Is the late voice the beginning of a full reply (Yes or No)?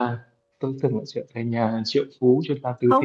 Yes